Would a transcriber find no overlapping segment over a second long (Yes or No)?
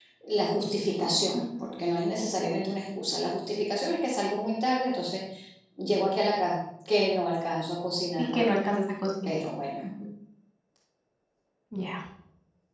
Yes